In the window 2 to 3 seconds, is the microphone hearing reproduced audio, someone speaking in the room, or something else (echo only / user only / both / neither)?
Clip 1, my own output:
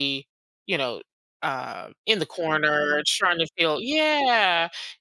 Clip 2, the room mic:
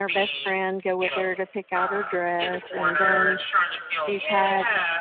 both